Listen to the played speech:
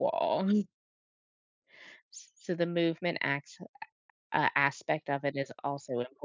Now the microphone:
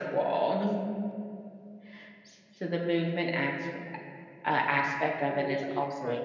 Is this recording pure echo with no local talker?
No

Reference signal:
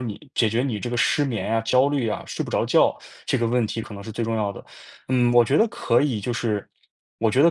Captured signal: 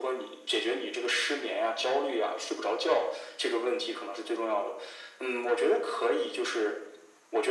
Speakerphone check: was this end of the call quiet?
Yes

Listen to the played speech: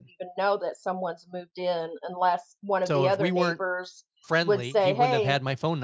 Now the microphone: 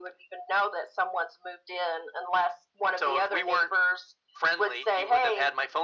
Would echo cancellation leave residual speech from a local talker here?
No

